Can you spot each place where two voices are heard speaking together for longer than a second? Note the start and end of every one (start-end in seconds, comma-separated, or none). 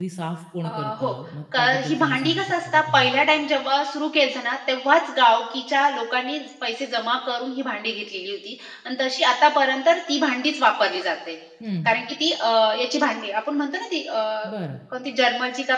1.6-3.1